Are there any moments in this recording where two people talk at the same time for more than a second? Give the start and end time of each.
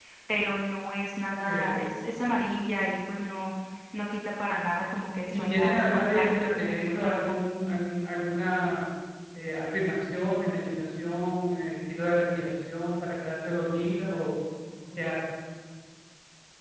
5.3-7.5

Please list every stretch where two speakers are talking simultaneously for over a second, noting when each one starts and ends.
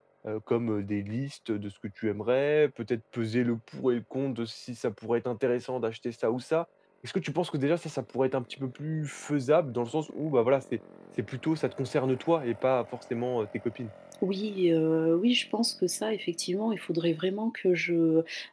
none

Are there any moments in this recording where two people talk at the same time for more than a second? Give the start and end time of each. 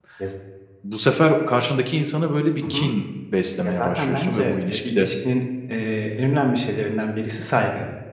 3.6-5.1

